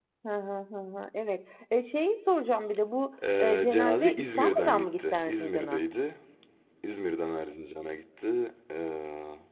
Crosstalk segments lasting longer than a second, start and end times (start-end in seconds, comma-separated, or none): 3.4-5.8